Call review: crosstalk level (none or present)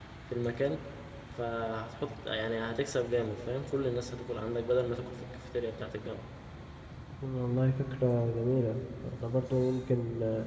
none